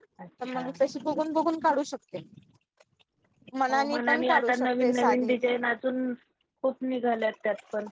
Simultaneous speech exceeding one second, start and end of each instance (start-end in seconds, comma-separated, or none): 3.7-5.3